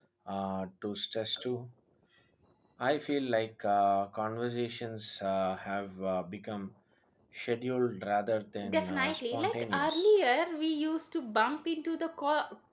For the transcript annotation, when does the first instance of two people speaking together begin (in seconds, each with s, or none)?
8.6 s